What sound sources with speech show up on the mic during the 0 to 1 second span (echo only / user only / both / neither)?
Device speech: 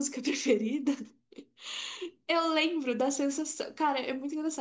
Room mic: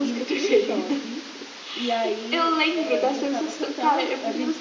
both